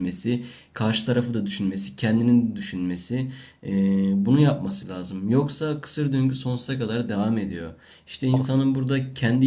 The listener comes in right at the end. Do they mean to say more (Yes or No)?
No